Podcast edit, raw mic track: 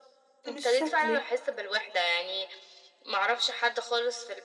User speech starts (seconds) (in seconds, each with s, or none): 0.5 s